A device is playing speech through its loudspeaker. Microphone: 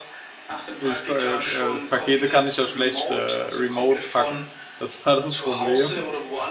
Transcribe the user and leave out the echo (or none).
Ich, ko- äh, äh, Pakete kann ich ja schlecht äh, remote packen. Das war das Problem.